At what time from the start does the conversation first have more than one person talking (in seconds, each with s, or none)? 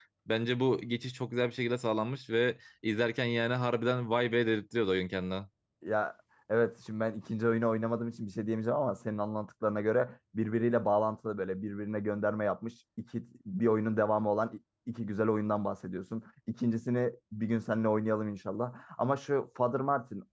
none